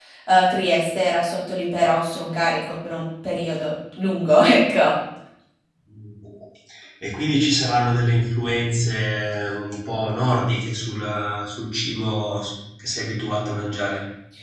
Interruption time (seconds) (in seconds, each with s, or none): none